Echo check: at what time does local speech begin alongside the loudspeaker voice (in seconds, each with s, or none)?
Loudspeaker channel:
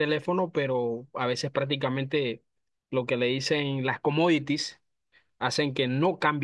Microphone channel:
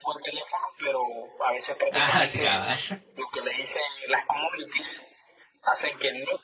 1.9 s